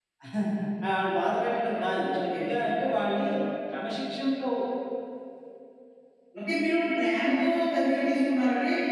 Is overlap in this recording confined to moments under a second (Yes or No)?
Yes